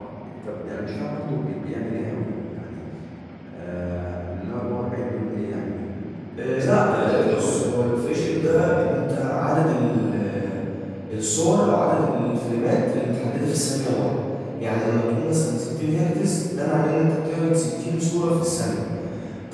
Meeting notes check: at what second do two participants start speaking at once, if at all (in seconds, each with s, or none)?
6.4 s